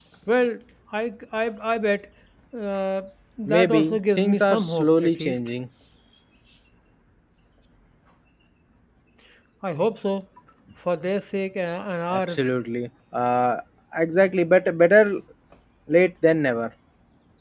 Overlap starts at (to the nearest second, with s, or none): 3 s